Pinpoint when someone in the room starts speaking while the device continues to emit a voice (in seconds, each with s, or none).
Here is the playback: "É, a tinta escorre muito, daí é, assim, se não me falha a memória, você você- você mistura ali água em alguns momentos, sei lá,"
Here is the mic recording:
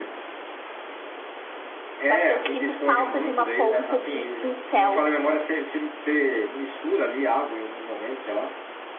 2.0 s